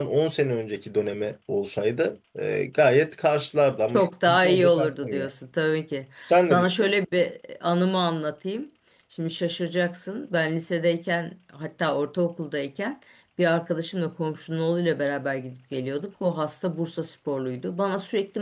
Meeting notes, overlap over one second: present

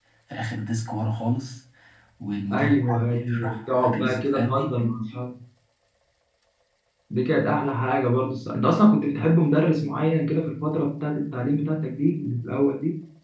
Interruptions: present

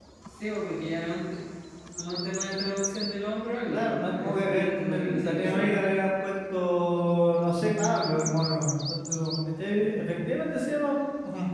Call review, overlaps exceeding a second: present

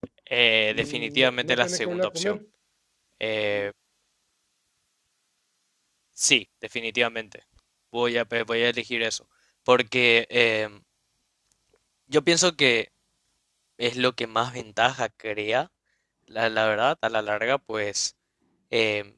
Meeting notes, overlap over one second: present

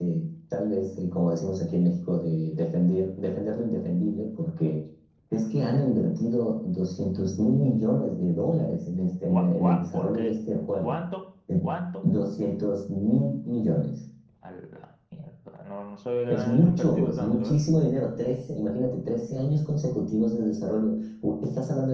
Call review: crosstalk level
present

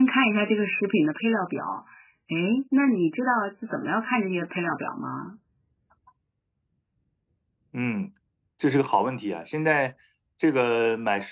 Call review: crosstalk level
none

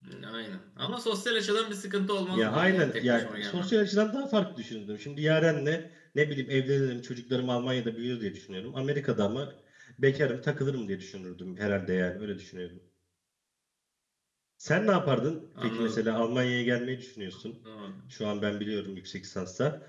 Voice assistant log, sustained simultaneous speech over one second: present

